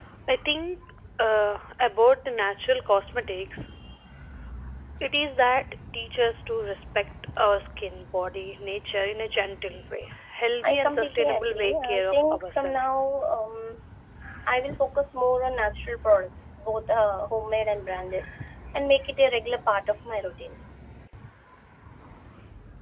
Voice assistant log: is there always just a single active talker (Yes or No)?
No